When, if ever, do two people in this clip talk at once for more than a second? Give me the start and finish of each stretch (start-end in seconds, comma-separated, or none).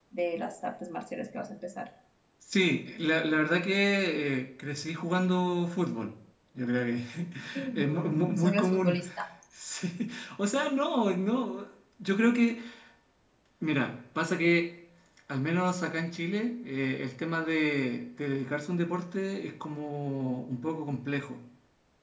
7.8-9.0